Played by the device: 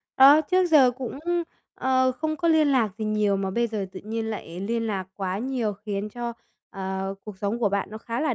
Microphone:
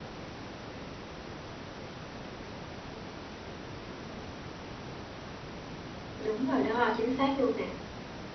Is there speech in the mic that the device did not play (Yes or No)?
Yes